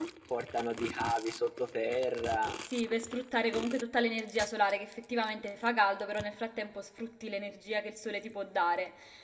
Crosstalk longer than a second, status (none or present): none